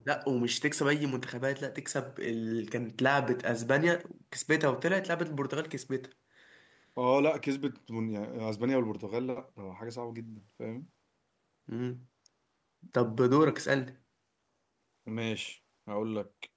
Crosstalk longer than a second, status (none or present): none